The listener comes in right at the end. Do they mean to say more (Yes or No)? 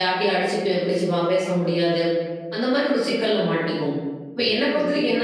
No